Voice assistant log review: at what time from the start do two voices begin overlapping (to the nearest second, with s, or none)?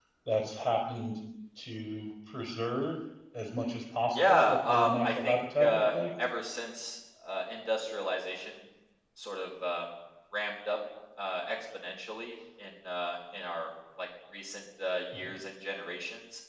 4 s